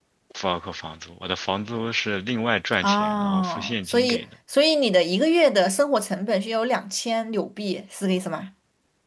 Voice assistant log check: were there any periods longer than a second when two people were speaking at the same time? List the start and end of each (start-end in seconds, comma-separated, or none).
2.8-4.2